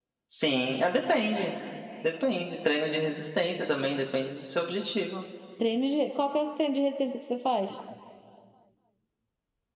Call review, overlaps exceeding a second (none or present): none